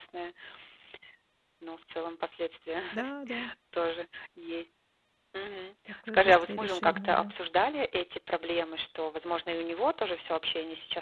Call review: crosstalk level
present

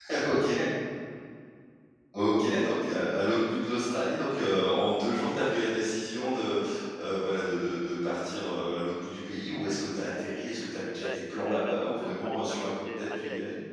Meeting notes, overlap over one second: present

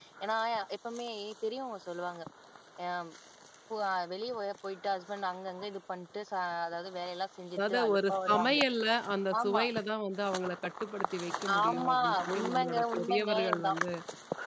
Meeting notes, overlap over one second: present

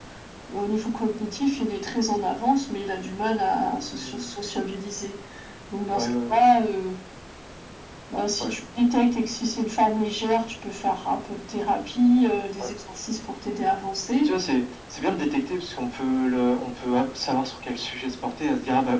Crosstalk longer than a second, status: none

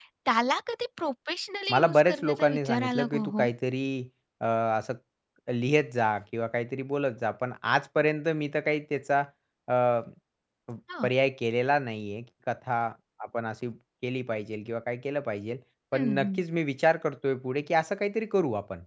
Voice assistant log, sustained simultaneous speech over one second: present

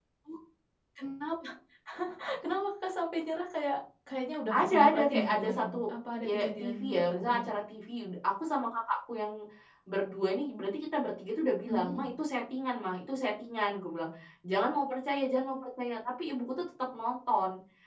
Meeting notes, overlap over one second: present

